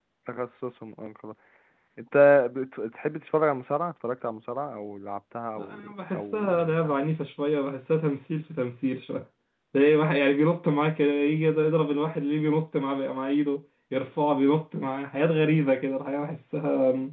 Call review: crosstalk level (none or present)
present